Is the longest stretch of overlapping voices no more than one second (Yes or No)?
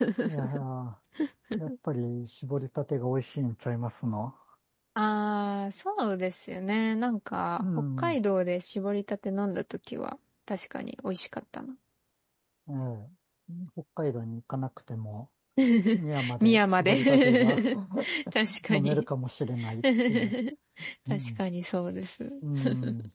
No